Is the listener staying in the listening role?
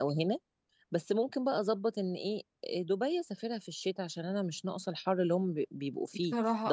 Yes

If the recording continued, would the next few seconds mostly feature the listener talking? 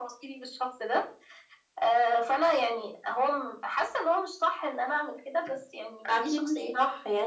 Yes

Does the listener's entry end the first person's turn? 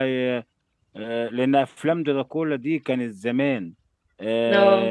No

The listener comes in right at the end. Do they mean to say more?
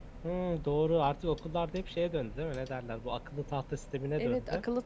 Yes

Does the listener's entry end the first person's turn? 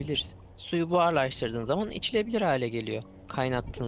Yes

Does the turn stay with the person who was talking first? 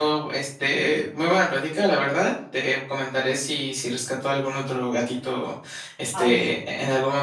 Yes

